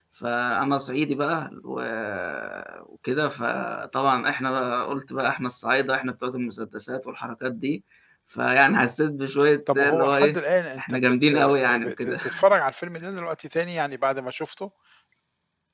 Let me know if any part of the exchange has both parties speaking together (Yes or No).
Yes